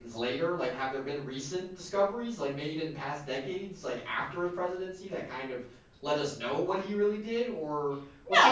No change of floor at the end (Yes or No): No